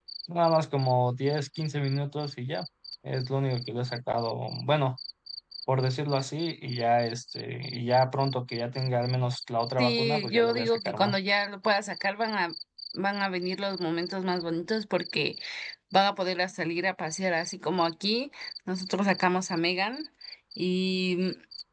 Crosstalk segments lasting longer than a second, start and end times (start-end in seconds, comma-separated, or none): 9.8-11.2